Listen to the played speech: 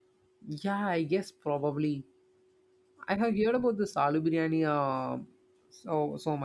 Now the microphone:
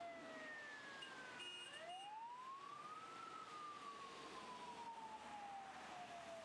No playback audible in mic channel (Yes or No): Yes